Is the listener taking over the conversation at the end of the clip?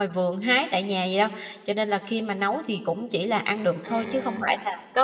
Yes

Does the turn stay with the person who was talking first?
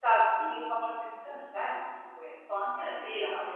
No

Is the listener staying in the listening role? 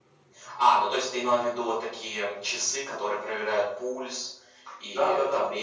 No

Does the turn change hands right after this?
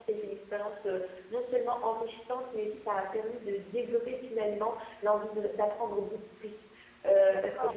Yes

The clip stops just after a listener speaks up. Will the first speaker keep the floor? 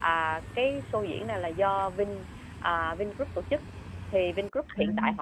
Yes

